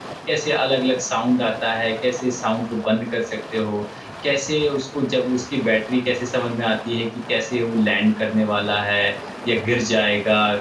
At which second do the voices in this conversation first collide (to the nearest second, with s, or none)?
none